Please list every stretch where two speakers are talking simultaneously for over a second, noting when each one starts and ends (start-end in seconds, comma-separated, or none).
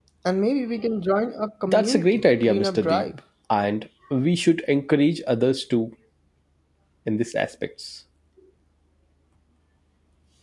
1.7-3.0